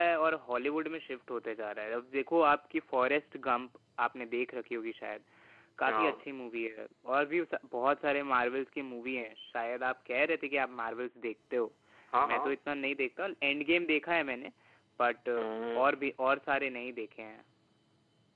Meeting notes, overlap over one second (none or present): none